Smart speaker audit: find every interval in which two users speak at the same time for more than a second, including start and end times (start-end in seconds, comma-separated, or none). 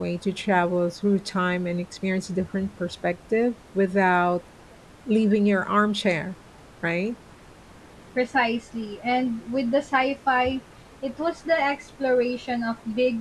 none